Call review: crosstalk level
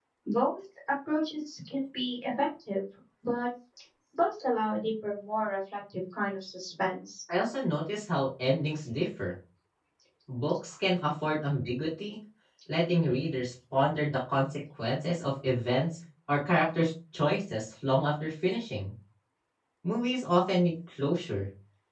none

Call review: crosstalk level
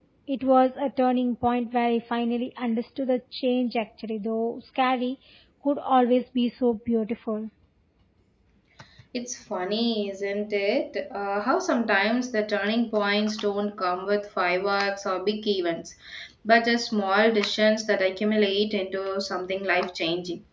none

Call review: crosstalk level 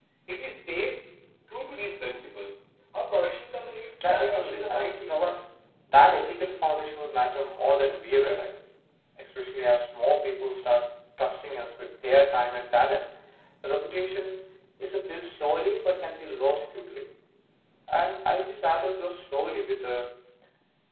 present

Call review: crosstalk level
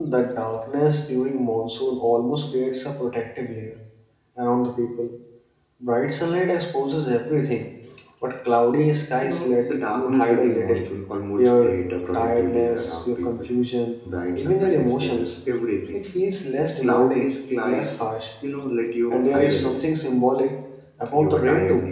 present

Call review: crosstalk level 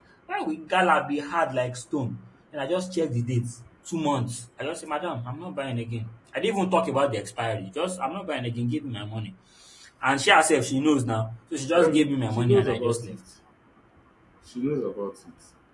present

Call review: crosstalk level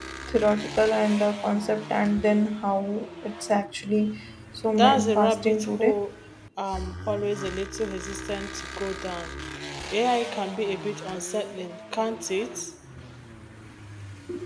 present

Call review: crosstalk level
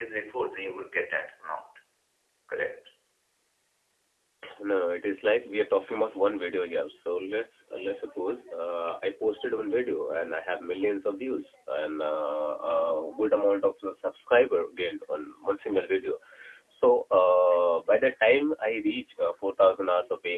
none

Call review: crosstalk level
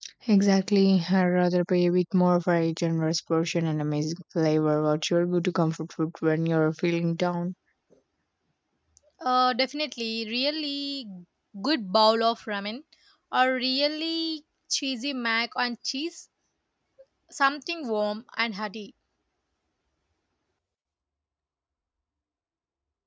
none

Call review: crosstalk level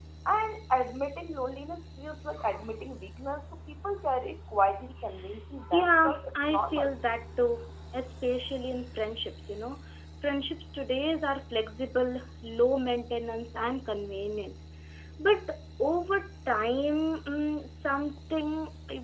present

